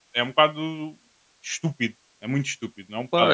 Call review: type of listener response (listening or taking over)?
taking over